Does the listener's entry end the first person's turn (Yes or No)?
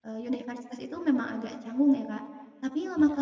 No